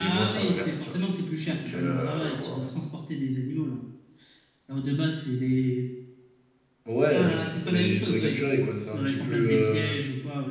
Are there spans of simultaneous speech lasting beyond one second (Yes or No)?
Yes